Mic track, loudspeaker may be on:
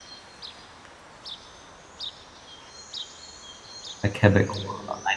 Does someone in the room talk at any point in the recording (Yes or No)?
Yes